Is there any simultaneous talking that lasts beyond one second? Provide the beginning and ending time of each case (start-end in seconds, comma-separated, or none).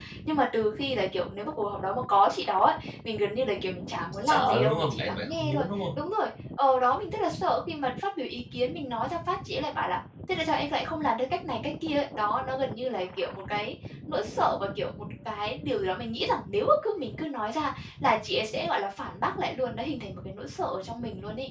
4.3-5.7